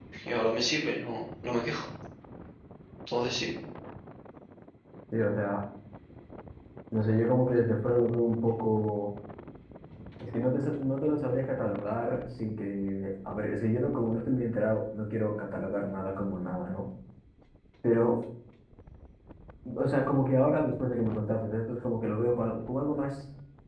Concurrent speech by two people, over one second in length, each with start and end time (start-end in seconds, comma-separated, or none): none